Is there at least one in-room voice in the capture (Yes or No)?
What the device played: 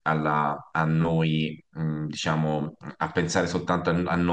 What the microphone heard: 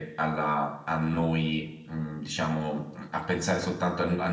No